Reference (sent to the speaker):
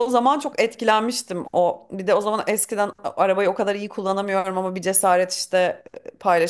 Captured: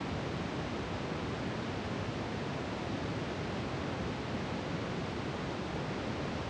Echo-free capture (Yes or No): Yes